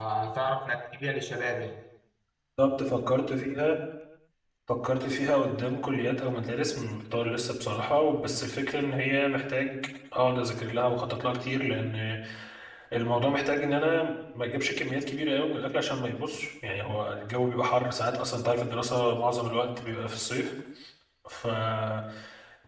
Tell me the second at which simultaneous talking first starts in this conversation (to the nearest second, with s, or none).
none